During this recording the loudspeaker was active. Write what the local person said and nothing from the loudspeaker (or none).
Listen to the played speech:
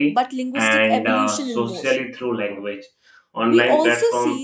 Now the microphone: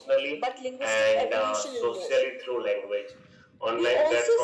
none